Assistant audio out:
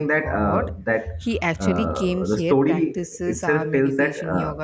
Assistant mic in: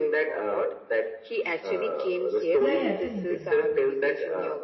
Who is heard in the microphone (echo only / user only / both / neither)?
both